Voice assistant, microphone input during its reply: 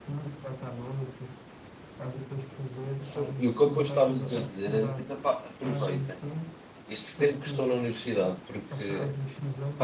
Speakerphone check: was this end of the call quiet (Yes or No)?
No